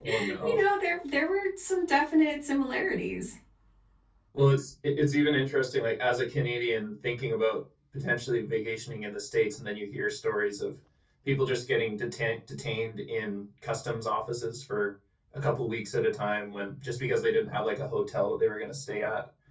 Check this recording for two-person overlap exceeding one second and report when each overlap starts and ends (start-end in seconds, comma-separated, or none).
none